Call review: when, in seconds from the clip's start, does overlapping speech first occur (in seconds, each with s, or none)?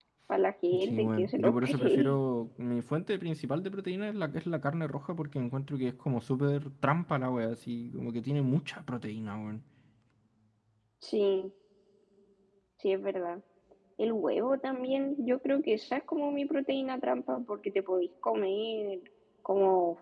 0.8 s